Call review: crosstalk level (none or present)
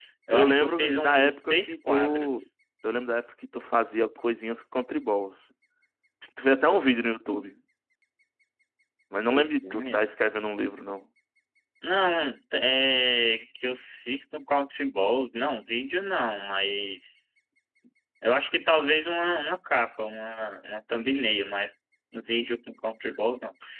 present